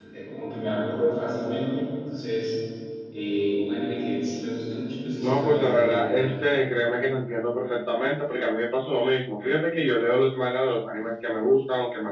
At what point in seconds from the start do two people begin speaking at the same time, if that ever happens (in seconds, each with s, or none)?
5.2 s